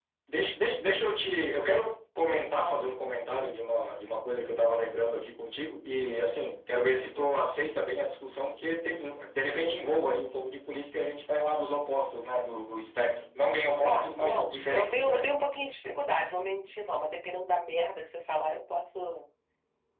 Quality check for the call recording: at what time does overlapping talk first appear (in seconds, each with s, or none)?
13.8 s